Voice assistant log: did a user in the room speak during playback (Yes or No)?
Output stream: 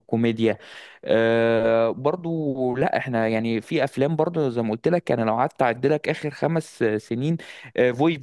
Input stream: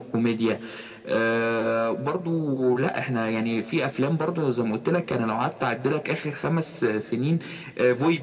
No